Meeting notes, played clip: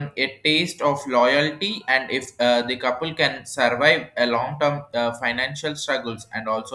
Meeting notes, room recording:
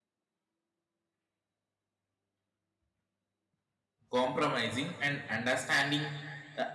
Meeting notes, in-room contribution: present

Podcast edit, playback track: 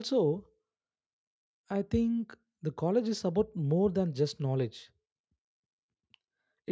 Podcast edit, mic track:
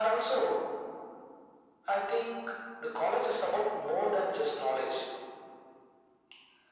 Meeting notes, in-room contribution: none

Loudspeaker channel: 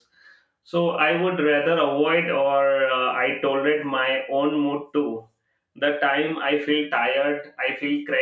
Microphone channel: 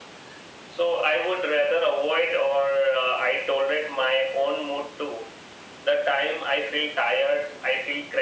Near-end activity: none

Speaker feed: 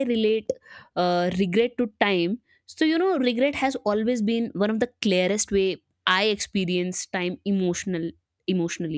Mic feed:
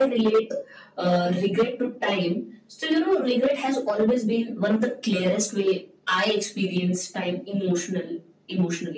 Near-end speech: none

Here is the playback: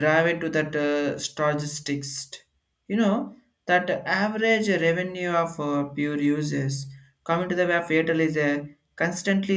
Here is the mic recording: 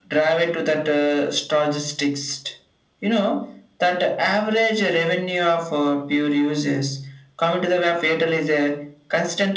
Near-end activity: none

